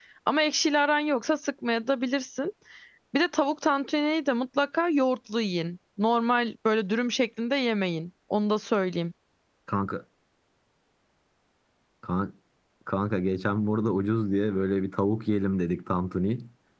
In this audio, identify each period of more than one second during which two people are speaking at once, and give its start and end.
none

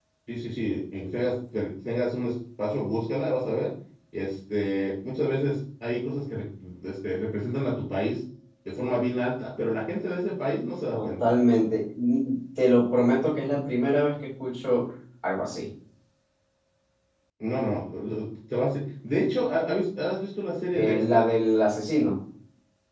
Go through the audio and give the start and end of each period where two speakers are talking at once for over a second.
none

